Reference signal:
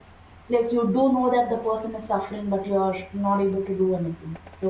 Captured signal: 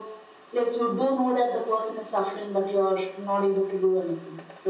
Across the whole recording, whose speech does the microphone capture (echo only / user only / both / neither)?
echo only